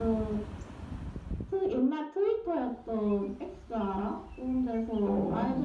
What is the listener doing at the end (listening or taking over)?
listening